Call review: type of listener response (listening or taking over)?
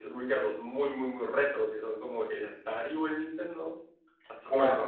listening